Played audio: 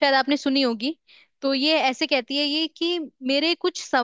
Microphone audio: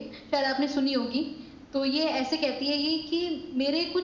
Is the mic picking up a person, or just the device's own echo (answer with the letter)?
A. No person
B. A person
A